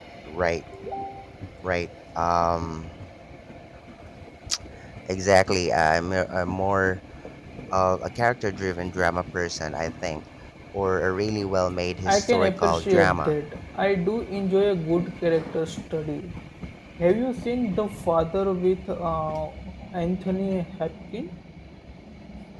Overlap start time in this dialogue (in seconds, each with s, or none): 12.1 s